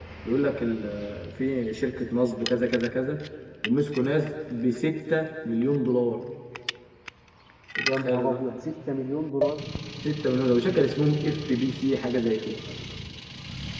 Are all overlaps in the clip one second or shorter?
Yes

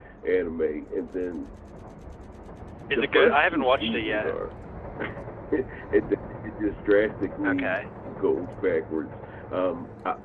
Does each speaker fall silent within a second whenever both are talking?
No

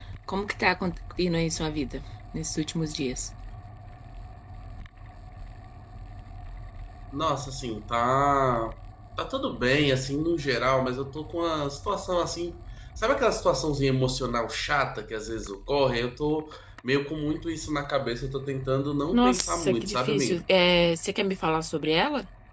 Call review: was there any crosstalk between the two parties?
Yes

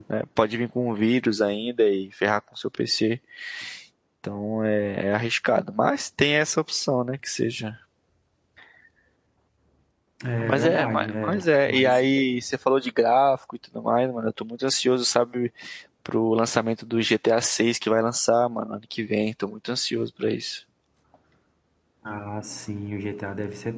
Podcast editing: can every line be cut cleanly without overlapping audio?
No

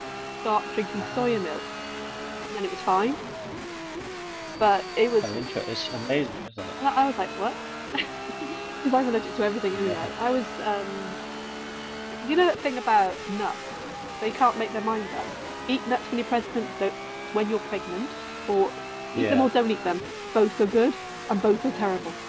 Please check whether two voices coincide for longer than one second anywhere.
No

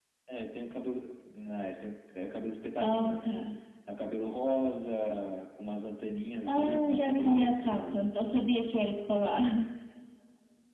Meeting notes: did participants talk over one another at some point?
Yes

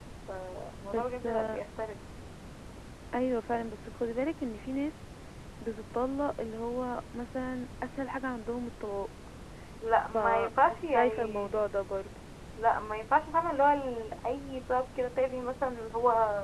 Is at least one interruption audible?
Yes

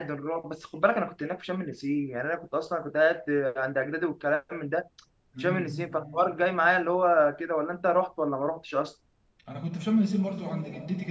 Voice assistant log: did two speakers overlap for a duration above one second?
No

